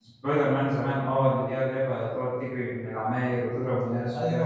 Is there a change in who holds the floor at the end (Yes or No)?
Yes